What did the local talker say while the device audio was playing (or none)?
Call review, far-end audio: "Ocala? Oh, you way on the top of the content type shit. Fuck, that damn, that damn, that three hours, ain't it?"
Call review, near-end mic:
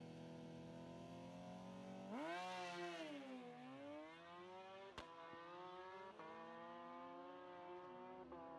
none